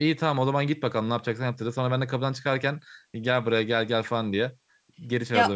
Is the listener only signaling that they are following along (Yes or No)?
No